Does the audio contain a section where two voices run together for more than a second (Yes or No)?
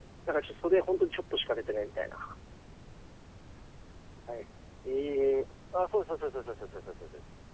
No